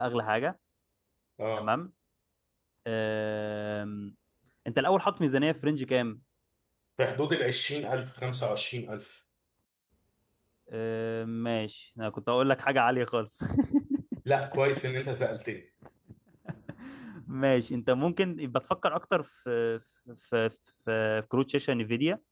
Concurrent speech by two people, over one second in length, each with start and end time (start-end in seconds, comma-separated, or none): none